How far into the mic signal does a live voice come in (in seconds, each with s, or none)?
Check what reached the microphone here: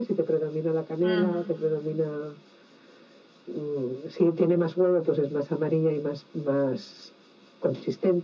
1.0 s